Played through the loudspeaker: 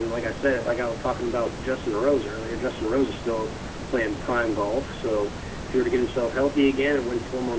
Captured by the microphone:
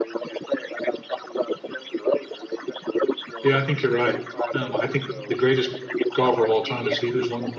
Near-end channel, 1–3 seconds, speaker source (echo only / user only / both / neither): echo only